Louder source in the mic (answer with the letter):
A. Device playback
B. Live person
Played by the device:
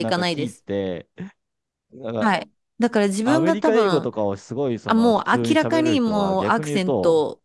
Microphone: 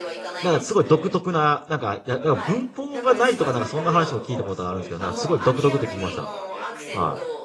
B